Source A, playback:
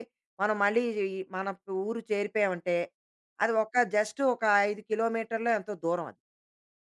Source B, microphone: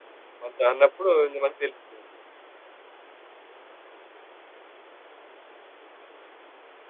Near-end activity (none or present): present